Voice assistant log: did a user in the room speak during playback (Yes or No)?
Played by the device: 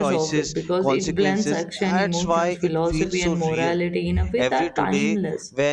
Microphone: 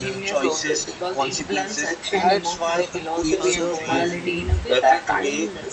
Yes